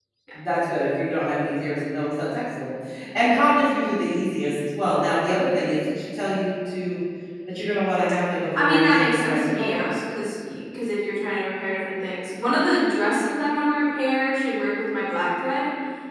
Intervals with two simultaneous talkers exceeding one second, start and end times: 8.6-9.9

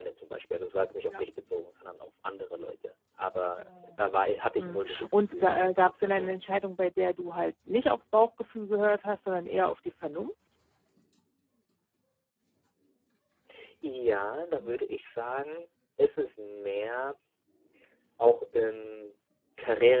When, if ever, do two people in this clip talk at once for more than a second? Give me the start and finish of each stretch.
4.6-6.4

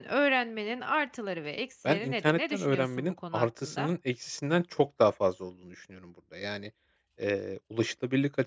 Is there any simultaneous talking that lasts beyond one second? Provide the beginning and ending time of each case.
1.8-3.9

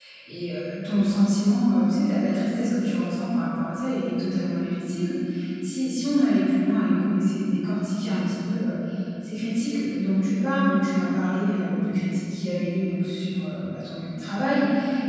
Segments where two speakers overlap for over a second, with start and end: none

